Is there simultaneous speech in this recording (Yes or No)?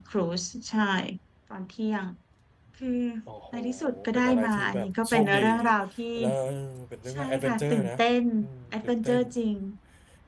Yes